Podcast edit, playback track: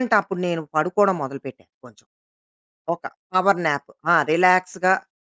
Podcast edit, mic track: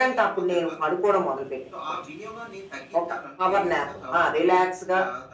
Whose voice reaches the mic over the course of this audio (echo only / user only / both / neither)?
both